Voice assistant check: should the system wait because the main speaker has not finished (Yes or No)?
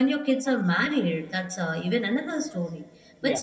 Yes